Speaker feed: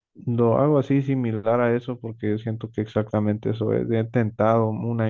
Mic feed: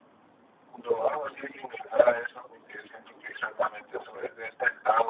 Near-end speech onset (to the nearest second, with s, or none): none